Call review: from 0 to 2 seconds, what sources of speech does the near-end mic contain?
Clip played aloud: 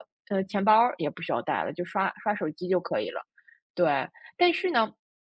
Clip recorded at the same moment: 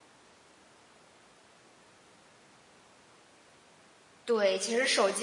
neither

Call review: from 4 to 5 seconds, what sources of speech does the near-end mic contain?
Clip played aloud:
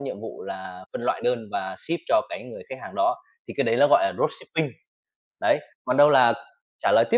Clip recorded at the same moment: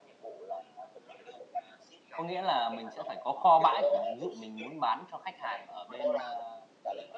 both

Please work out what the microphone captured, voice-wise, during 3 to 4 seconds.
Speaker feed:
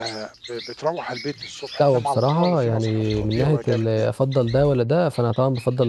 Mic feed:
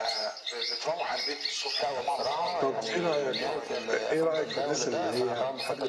both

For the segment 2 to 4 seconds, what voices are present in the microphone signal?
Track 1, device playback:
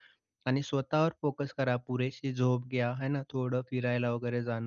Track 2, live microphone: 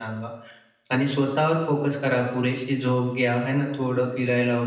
echo only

